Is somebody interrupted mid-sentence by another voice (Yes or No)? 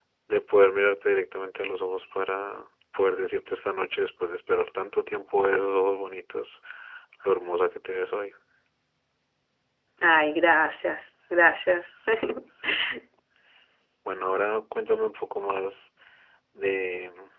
No